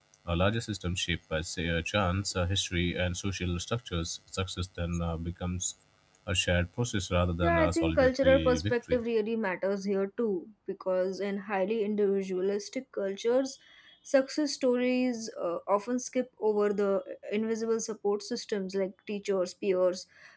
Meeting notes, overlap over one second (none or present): present